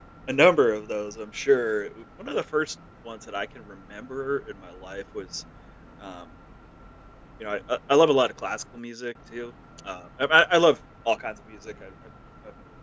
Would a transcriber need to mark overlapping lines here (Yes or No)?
No